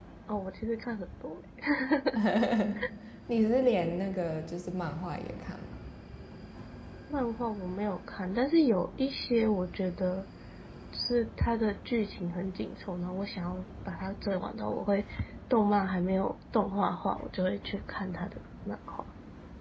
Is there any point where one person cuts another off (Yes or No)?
No